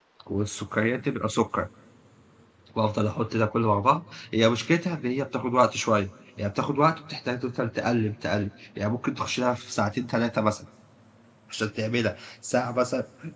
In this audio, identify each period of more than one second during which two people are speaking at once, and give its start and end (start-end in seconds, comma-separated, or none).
none